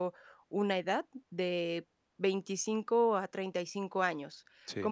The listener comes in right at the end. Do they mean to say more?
No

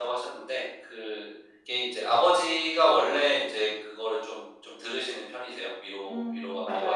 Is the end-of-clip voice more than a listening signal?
Yes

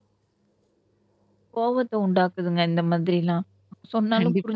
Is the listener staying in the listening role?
No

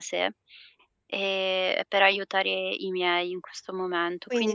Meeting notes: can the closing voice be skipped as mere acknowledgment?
No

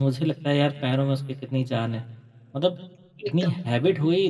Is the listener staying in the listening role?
Yes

